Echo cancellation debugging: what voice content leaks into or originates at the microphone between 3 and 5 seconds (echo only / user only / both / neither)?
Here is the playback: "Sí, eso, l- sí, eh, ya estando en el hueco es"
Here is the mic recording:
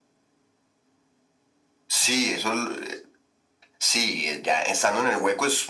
echo only